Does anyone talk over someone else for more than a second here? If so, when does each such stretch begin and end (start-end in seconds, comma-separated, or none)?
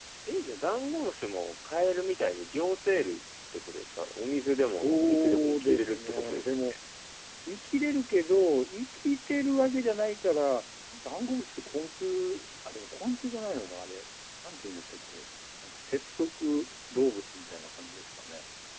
4.6-6.7